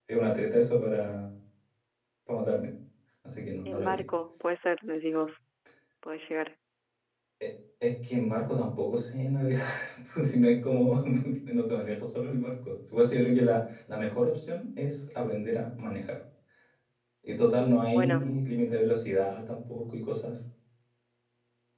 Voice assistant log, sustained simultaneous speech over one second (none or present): none